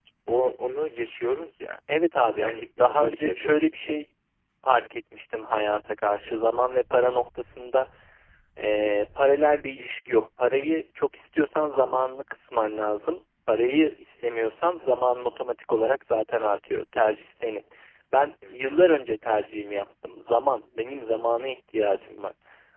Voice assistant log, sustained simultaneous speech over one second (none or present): present